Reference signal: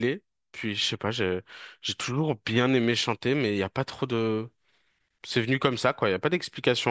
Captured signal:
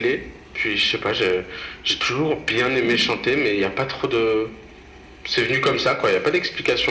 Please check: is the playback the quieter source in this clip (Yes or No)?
No